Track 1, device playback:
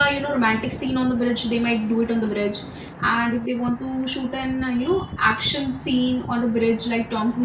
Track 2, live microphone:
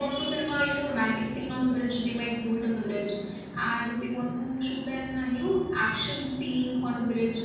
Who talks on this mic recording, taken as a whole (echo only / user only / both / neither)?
echo only